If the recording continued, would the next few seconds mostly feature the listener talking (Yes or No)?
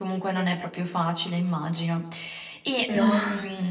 No